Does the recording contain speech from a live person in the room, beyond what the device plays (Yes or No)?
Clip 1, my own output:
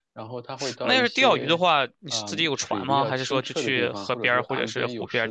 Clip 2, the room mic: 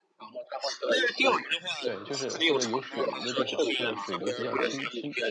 Yes